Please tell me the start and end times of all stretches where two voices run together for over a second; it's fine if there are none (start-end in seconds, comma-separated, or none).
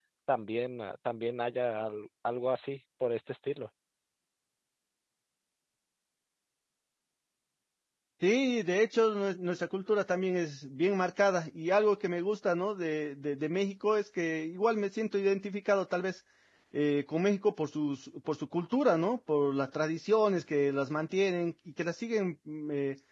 none